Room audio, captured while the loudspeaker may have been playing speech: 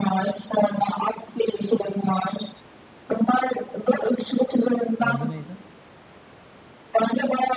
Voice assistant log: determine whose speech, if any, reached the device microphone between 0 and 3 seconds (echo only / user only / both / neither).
echo only